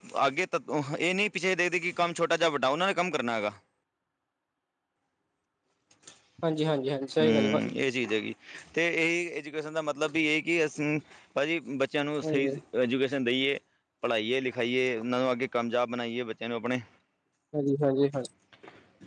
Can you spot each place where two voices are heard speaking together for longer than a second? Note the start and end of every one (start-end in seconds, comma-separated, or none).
none